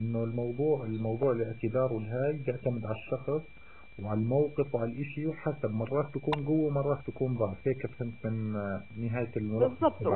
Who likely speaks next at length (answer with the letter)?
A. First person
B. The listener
B